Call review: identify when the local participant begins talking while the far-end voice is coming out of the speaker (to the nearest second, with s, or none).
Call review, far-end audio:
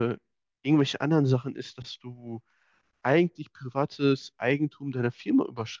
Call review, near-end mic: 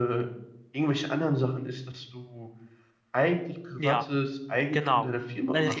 4 s